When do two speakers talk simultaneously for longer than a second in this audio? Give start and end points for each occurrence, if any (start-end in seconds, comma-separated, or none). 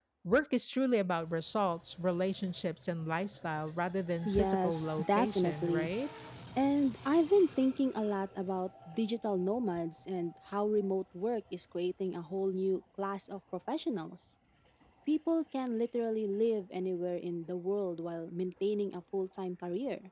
4.2-5.9